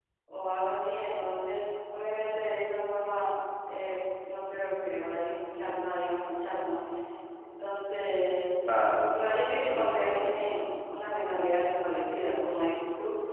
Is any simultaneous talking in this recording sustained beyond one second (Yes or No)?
Yes